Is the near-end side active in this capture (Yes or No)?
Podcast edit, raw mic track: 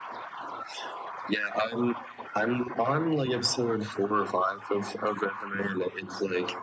No